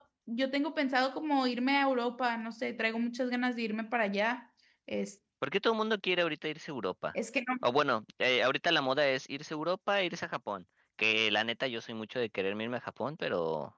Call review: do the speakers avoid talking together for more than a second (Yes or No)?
Yes